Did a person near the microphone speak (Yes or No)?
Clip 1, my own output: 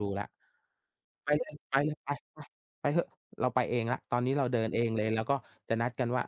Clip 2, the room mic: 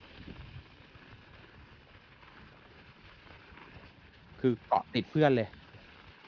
Yes